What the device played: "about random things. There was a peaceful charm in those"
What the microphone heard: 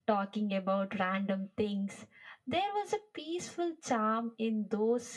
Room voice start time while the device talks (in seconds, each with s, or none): none